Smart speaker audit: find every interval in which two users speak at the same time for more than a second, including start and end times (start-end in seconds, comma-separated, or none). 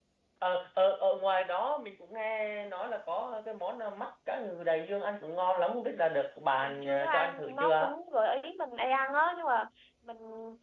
6.6-7.9